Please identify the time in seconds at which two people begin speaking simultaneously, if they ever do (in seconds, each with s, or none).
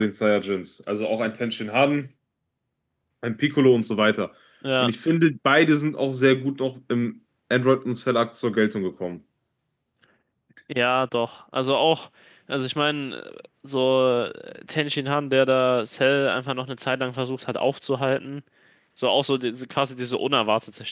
none